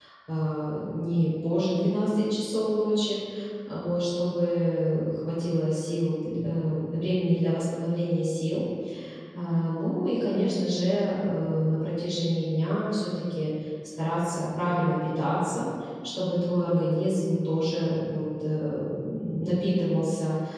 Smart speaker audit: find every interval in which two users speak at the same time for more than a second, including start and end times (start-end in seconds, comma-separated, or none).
none